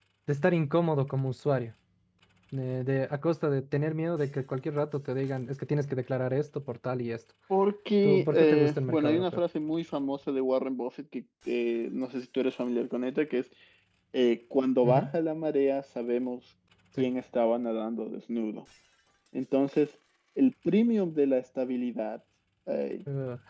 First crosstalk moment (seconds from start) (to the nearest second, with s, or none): 8 s